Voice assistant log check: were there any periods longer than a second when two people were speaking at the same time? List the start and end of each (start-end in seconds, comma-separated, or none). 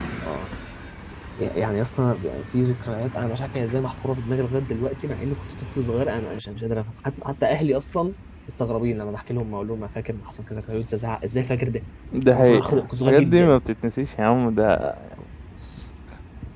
12.3-13.6